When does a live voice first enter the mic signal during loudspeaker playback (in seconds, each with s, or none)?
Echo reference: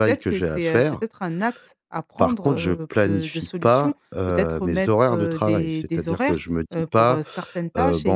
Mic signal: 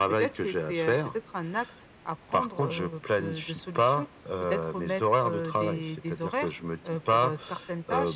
none